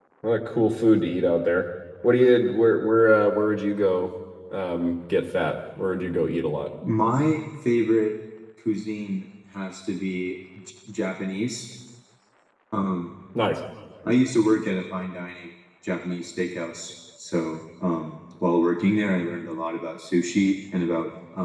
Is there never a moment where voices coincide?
Yes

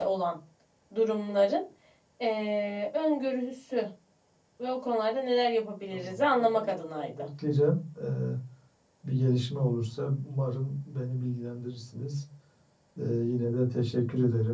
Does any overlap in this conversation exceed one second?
Yes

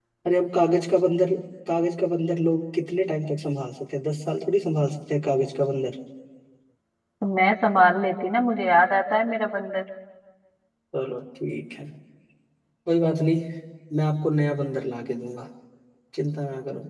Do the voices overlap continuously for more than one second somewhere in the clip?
No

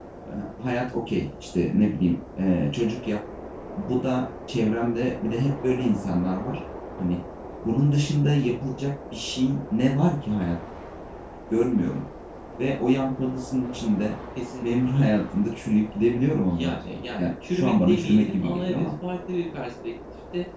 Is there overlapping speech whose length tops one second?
Yes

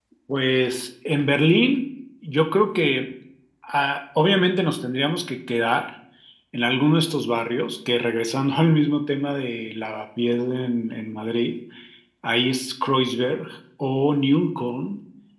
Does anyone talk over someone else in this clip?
No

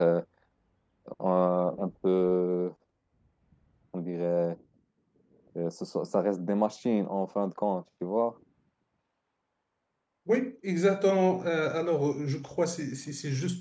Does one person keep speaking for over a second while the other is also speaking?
No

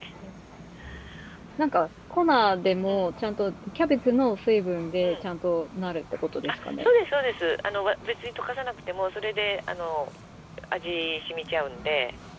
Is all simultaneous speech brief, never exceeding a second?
Yes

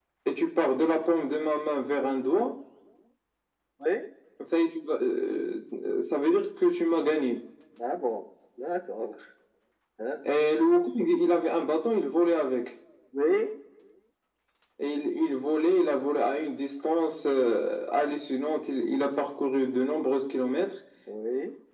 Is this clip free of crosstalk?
Yes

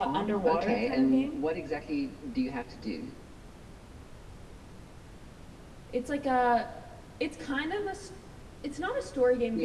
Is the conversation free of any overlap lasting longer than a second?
No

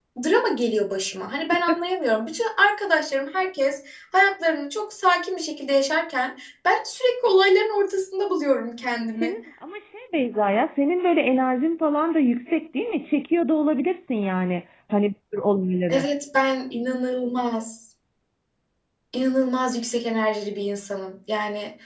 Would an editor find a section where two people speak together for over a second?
No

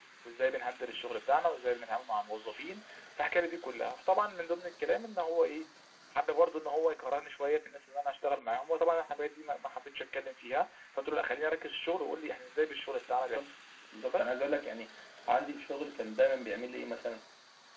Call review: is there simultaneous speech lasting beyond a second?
No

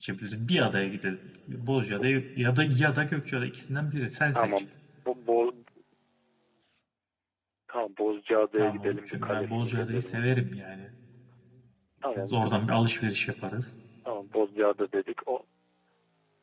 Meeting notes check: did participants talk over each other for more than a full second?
Yes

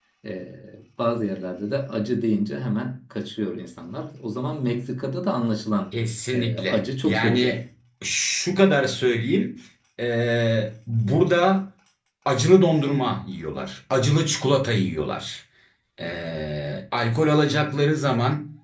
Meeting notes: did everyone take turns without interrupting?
No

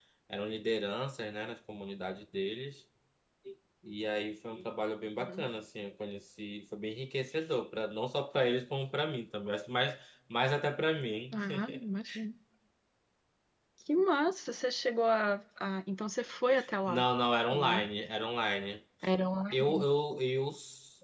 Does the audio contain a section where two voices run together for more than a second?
No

